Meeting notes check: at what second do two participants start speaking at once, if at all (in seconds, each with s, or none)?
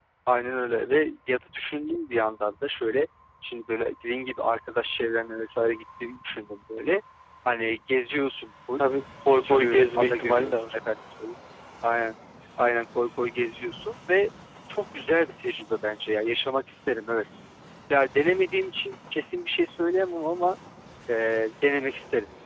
9.3 s